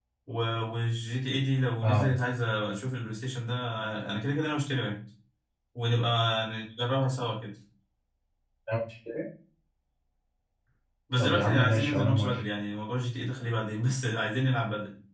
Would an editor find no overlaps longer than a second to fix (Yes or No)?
No